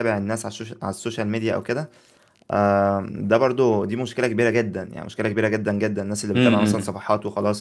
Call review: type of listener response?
listening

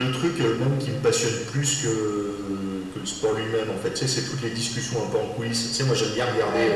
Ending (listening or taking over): listening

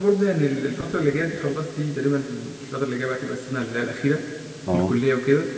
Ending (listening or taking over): listening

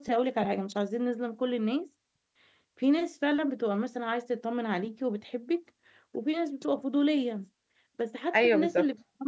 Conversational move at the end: listening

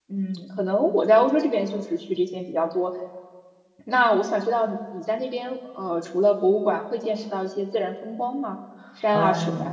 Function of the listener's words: taking over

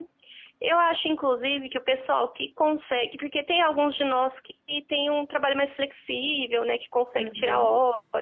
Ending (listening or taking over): listening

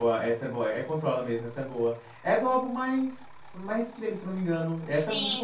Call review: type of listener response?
taking over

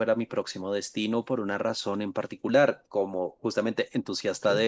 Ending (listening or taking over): listening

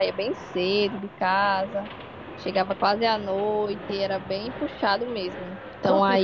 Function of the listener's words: listening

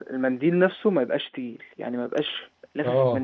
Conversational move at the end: taking over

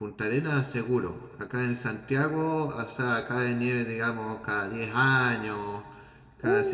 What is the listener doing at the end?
listening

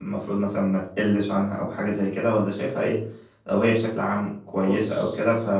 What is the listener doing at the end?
listening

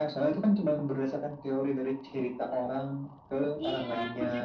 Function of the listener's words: taking over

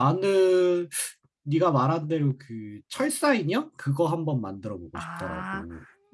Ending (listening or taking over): taking over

